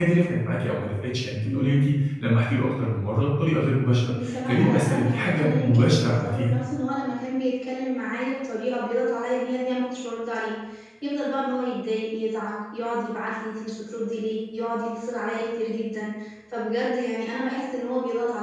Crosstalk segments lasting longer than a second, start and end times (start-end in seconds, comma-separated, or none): 4.2-6.5